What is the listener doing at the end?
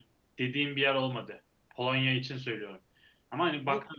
taking over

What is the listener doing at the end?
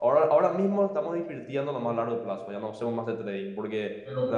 listening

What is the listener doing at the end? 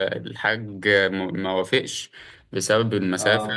listening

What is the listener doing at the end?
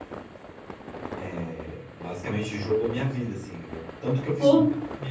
listening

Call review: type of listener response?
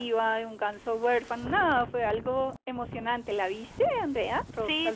taking over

